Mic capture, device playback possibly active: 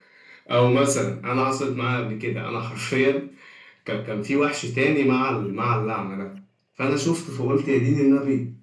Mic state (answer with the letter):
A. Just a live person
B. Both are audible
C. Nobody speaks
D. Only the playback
D